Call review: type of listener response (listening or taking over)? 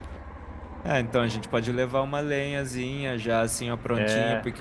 listening